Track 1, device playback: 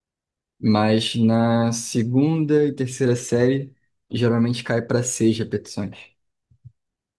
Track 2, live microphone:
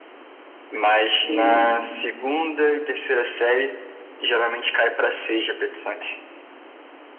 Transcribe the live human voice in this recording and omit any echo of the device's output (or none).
Uhum.